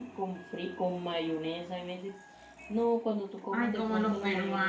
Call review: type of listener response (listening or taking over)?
taking over